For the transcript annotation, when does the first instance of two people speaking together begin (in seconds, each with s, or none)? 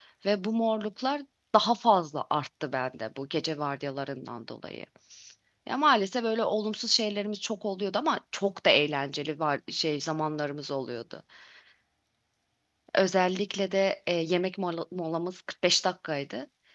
none